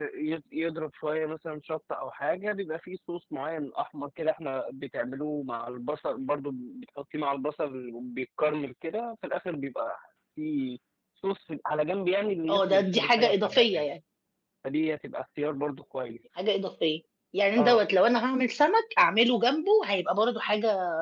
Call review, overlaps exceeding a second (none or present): present